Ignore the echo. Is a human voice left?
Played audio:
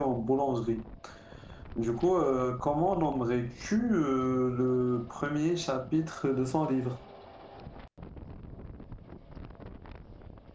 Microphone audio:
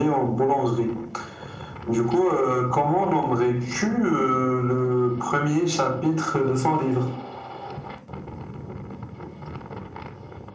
No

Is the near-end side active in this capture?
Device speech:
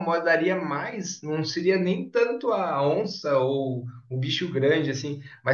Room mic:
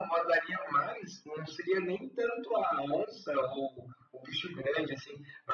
No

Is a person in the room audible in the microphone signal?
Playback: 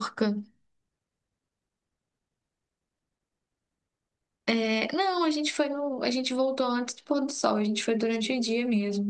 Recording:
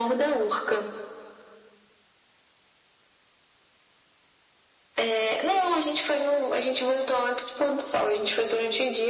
No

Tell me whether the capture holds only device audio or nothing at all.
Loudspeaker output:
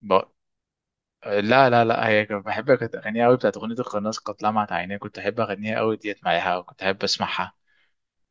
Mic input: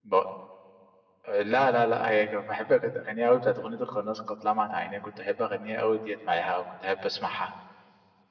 Yes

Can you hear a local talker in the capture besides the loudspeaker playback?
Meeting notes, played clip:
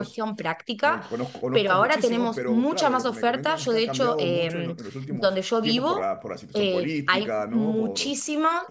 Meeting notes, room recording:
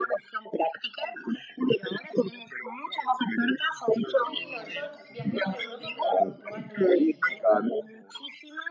Yes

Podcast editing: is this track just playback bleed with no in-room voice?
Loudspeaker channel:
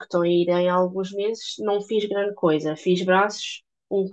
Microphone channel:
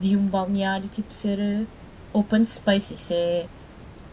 No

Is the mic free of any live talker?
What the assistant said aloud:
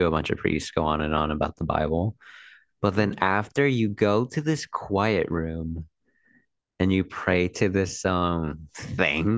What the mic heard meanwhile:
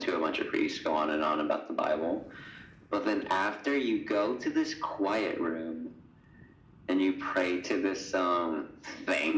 Yes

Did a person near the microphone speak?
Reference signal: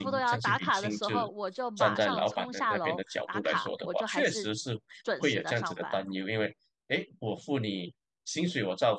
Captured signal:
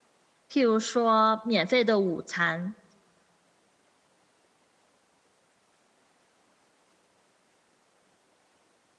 Yes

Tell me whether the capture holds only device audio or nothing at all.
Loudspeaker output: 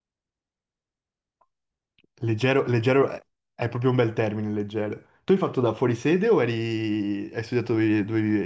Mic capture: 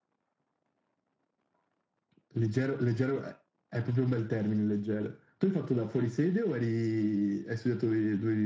Yes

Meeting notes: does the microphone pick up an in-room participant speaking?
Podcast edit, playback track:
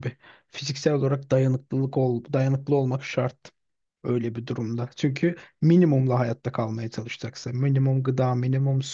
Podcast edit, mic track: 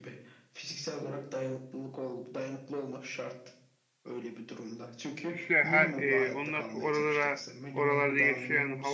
Yes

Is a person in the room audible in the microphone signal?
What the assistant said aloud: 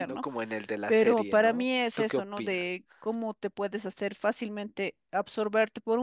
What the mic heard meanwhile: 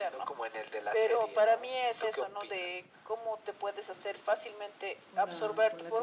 Yes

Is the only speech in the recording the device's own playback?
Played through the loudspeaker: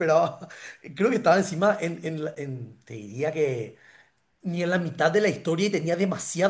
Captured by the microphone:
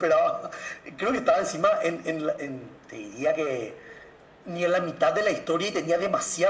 Yes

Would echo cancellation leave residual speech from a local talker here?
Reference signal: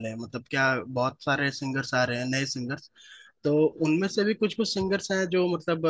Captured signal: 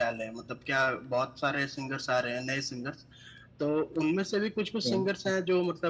Yes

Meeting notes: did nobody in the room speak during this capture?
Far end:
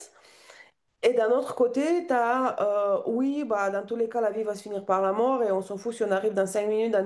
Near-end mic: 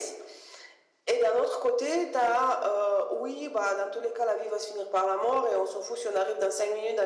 Yes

